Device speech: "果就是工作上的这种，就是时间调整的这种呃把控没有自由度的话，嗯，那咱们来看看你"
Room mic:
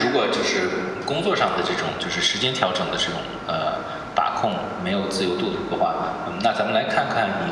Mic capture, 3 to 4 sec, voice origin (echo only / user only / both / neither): echo only